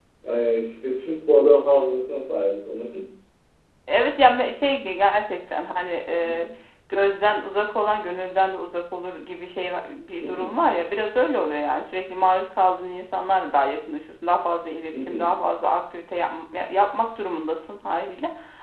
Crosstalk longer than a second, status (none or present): none